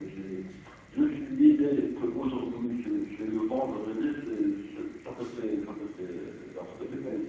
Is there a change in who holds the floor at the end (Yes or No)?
Yes